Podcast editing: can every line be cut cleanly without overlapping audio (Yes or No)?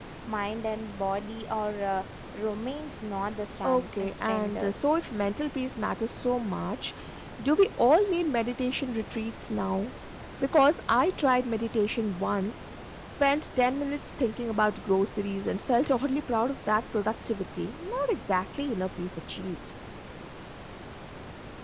No